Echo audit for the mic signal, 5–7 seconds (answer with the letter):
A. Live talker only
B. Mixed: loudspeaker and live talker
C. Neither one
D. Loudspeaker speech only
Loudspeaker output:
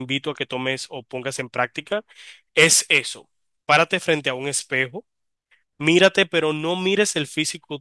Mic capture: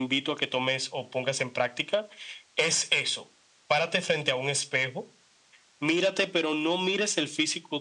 D